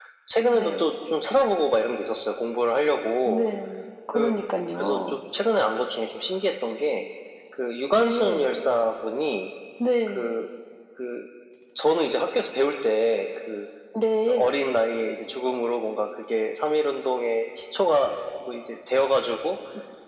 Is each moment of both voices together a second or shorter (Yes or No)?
Yes